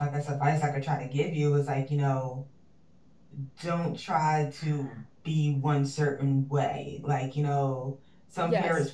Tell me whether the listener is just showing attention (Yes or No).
Yes